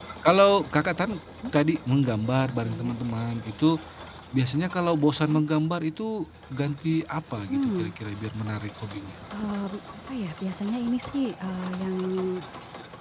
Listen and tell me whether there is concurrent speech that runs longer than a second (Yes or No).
No